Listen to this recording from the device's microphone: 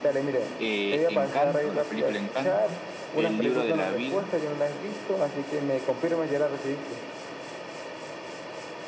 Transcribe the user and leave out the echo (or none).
Eh, Encanto, la película Encanto, El libro de la vida,